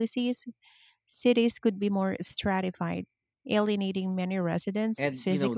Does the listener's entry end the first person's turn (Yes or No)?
Yes